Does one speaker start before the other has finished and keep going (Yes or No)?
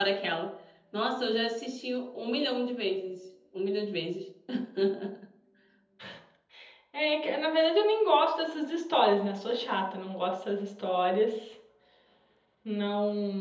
No